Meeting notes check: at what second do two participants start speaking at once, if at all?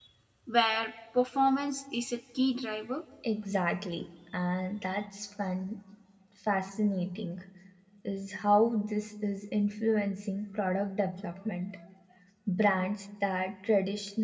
none

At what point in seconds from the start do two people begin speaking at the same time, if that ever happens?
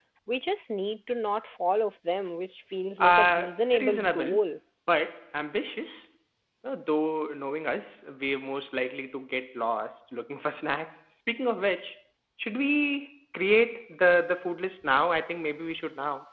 3.0 s

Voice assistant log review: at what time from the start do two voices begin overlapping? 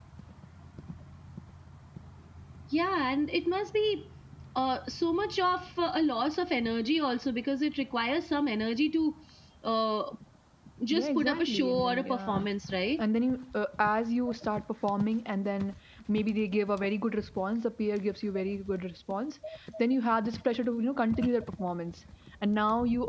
10.9 s

